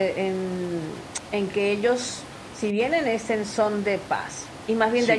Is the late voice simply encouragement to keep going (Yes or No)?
No